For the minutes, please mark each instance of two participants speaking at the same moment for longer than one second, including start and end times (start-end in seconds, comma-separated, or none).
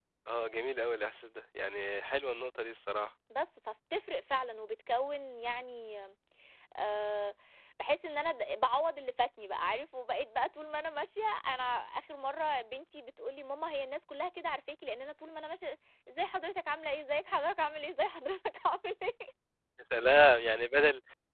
none